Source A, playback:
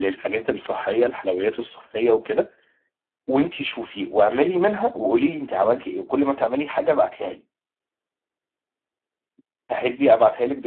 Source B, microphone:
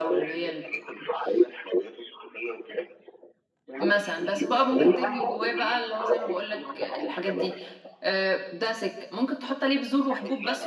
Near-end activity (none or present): present